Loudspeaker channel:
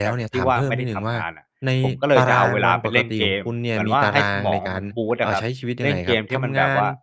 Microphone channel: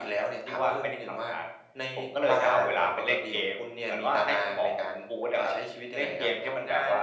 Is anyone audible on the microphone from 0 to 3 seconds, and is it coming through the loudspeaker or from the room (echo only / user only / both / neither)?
echo only